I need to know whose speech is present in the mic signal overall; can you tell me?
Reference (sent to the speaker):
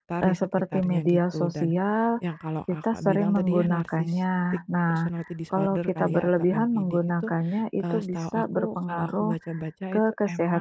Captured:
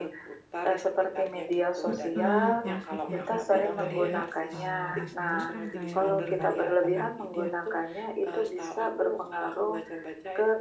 both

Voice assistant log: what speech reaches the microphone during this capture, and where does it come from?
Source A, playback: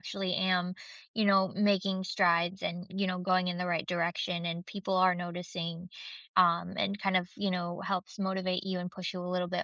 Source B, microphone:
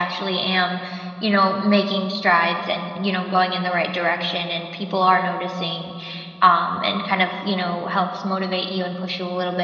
echo only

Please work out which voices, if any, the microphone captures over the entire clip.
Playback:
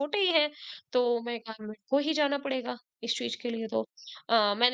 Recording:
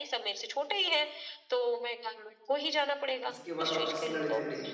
both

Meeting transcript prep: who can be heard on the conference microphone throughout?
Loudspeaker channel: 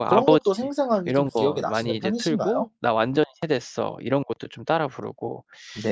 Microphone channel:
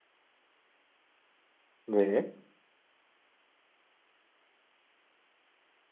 user only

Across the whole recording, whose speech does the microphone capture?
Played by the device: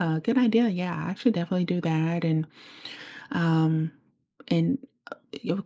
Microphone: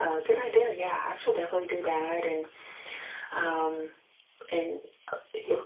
echo only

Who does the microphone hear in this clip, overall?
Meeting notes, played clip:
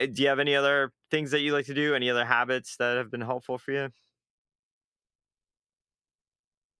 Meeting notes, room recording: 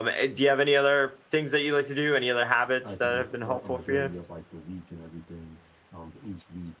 both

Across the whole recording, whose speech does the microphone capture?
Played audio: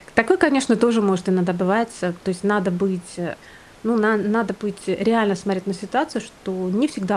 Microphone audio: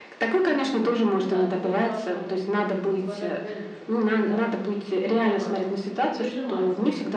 both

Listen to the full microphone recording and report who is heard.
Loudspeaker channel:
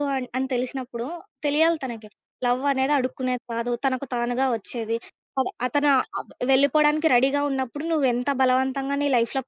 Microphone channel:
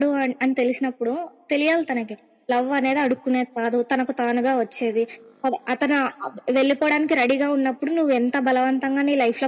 echo only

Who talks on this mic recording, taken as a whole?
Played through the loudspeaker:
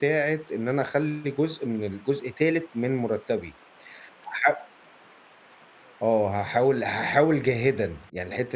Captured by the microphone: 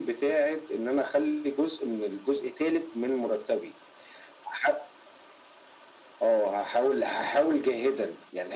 echo only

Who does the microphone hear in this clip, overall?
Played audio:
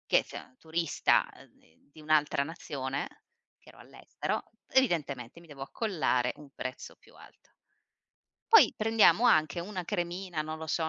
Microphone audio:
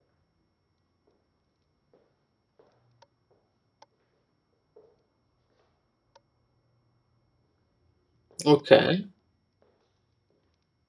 user only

